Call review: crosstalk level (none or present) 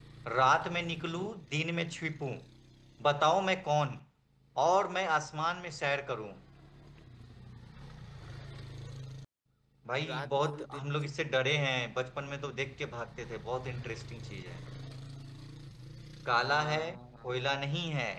present